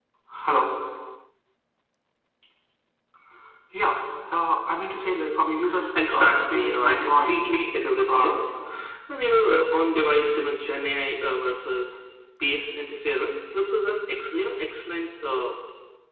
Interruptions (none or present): present